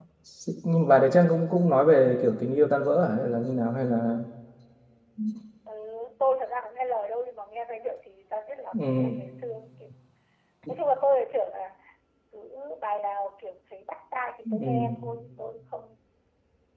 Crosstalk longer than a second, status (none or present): none